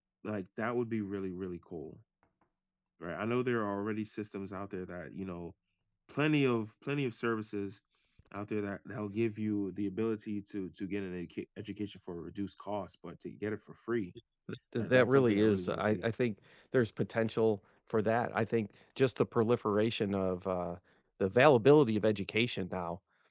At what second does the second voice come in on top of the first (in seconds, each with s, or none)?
14.8 s